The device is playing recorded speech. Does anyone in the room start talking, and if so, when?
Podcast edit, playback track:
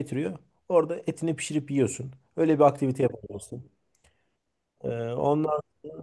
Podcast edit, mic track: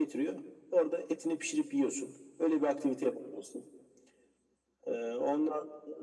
none

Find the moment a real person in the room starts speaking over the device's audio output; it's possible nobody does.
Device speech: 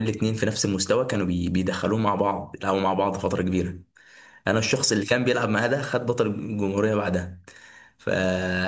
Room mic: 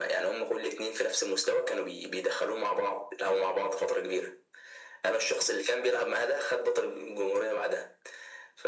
none

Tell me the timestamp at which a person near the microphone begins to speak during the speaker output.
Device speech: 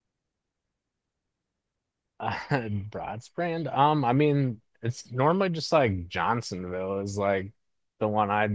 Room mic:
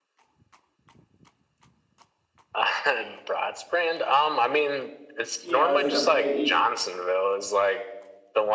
5.4 s

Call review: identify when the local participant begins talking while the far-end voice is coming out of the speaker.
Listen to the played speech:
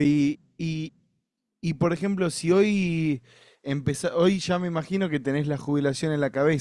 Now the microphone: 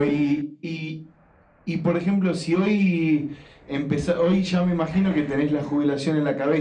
none

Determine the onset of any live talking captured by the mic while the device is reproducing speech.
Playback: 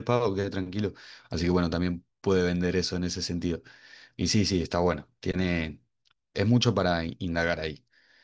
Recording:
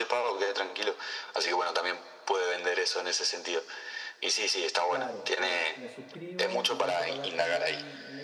4.8 s

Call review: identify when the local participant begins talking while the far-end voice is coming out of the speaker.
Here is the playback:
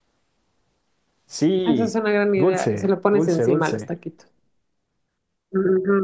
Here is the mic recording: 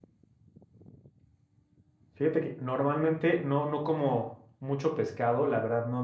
2.1 s

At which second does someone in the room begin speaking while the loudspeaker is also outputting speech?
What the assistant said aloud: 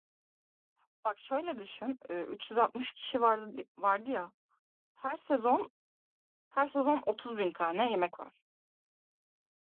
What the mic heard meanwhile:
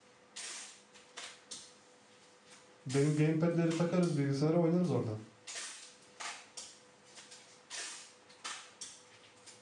2.9 s

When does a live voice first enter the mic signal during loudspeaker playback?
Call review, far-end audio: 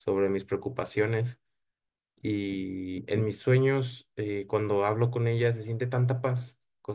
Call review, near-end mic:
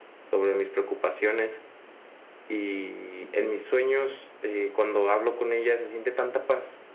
none

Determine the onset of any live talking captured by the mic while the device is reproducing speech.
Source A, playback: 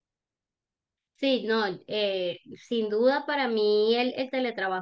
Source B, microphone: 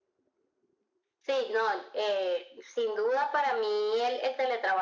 none

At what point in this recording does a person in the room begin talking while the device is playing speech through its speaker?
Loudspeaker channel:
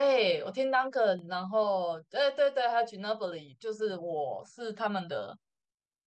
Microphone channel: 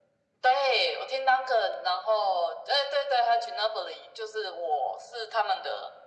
none

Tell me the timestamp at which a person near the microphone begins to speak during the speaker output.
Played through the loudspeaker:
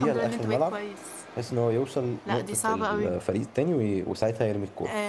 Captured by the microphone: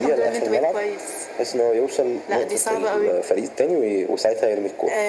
none

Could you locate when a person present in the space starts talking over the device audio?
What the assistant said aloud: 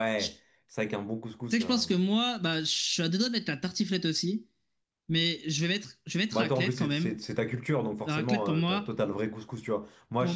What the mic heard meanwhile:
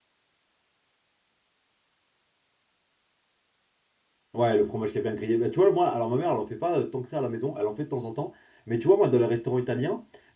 4.3 s

